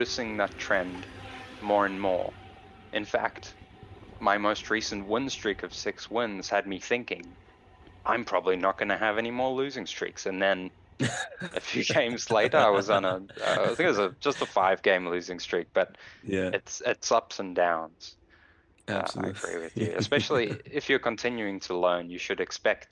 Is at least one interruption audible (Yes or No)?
Yes